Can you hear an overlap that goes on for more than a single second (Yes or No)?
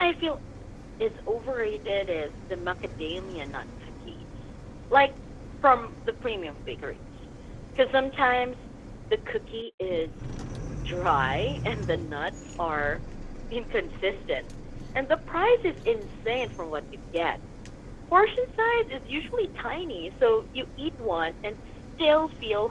No